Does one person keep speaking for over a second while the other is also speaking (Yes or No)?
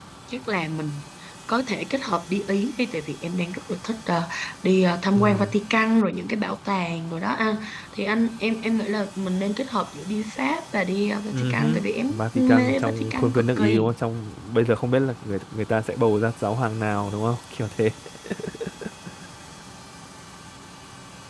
Yes